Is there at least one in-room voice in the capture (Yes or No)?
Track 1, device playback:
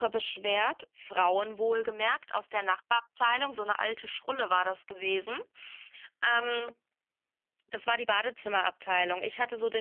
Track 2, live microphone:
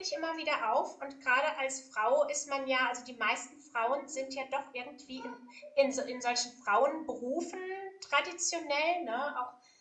Yes